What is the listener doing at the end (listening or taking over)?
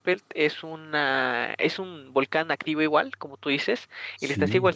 listening